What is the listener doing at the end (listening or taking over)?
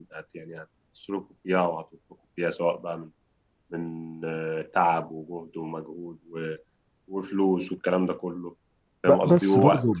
taking over